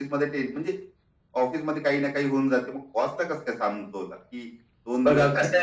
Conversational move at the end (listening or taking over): taking over